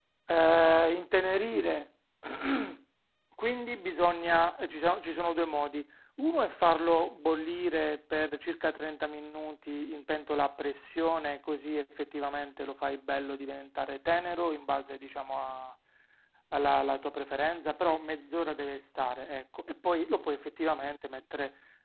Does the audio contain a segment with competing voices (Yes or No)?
No